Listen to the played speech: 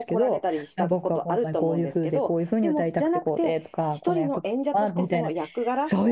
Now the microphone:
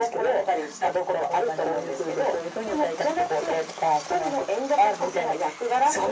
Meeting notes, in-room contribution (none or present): none